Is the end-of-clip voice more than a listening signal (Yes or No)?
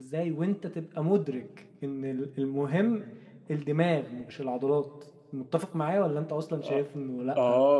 Yes